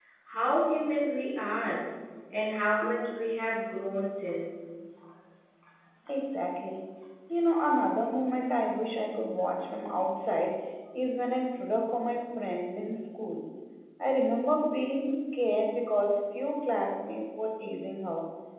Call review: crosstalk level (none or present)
none